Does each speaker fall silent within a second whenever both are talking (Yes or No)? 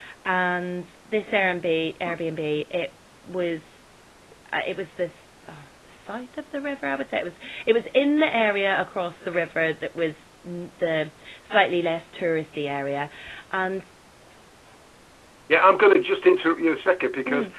Yes